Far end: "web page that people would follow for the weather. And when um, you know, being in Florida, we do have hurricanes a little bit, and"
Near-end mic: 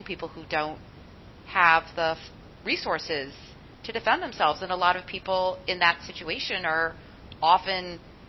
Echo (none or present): none